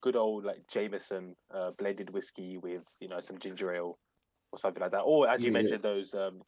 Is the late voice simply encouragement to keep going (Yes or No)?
Yes